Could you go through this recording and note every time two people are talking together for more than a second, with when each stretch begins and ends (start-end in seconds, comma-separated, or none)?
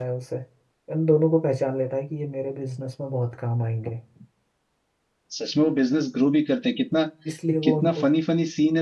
none